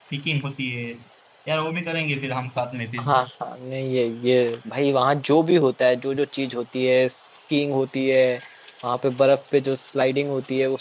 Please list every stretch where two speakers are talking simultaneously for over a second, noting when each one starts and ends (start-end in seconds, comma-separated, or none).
none